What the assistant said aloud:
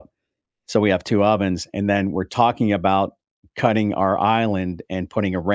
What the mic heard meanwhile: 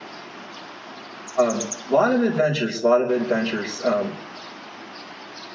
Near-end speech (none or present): present